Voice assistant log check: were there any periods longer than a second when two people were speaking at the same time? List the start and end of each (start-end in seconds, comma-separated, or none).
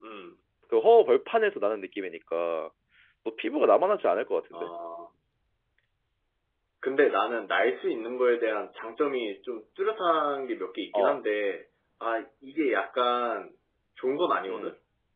none